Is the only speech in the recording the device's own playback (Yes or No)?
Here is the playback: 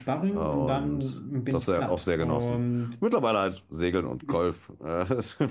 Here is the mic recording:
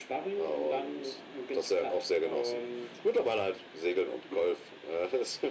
Yes